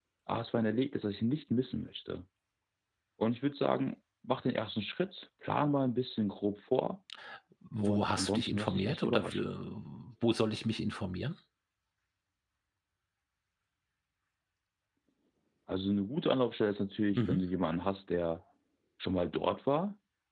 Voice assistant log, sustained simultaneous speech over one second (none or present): present